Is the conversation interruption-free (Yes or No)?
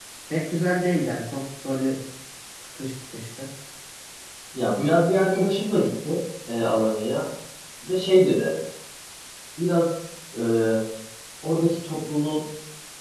Yes